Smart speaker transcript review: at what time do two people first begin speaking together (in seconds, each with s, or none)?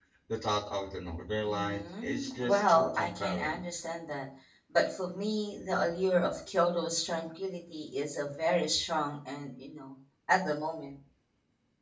1.4 s